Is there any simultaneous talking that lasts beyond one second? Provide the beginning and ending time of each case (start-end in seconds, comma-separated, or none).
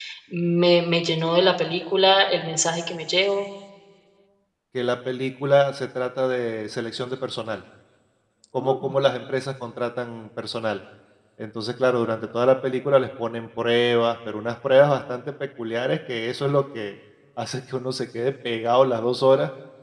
none